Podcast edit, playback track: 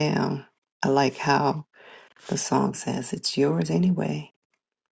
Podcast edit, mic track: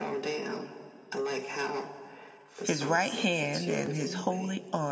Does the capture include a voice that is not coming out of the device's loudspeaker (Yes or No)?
Yes